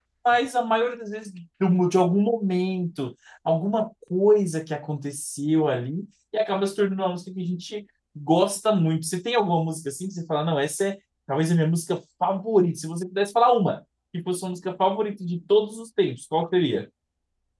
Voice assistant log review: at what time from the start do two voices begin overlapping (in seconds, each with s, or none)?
none